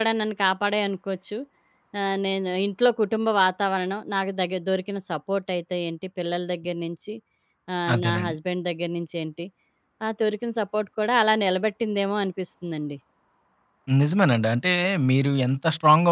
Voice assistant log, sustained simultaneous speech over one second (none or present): none